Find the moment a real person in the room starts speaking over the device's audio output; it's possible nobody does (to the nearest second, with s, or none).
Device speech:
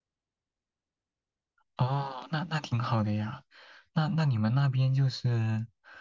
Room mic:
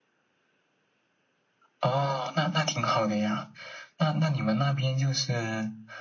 none